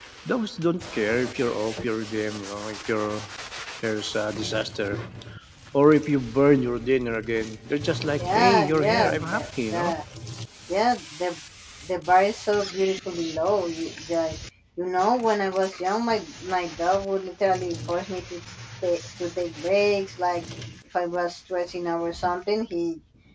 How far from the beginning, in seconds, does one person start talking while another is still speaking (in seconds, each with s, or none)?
8.2 s